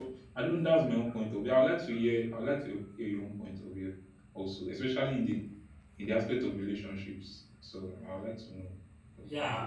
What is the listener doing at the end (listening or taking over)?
taking over